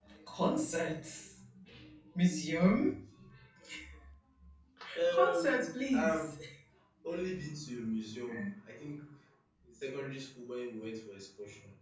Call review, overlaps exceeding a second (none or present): present